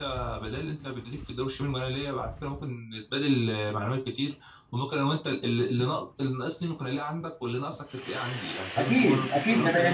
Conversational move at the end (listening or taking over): taking over